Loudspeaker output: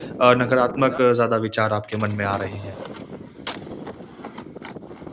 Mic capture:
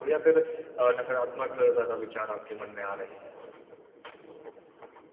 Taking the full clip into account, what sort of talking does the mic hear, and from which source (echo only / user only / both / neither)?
echo only